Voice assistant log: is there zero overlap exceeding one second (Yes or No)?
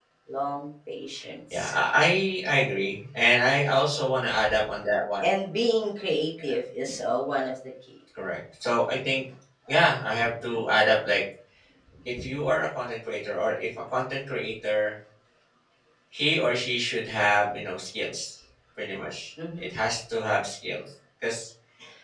Yes